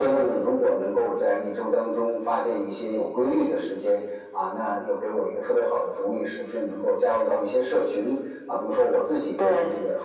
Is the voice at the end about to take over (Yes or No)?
No